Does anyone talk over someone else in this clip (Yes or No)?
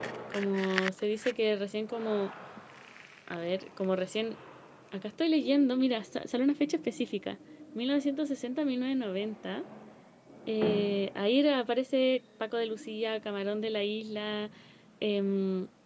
No